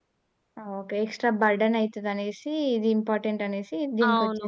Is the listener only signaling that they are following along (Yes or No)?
No